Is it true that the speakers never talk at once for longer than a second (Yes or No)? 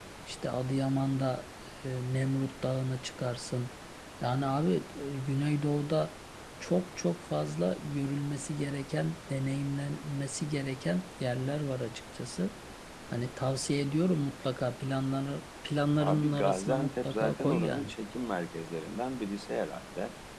No